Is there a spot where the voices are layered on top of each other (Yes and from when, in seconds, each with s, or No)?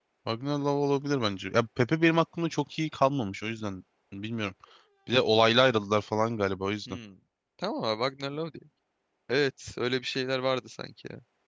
No